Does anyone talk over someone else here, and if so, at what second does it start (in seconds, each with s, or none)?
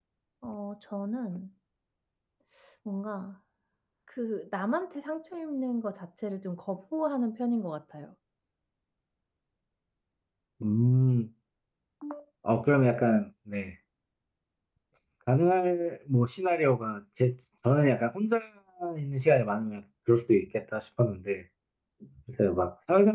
none